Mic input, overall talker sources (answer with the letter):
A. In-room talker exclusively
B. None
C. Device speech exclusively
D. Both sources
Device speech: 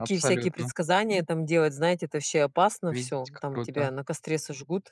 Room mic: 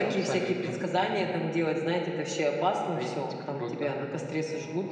C